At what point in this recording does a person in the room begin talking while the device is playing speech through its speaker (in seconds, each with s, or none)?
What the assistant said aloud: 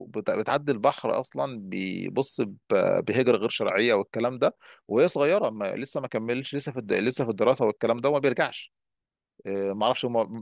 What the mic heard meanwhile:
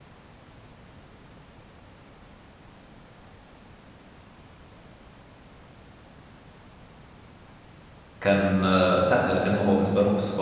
8.2 s